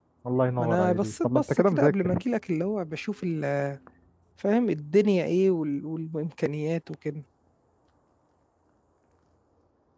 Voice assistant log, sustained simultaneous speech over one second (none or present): present